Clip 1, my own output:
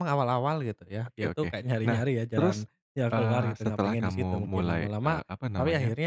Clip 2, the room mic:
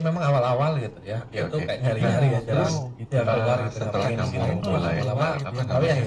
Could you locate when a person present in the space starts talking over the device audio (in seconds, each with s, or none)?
2.0 s